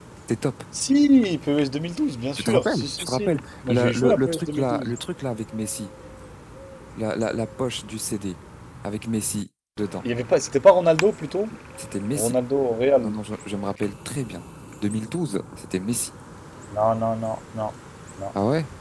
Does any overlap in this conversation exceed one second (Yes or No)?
Yes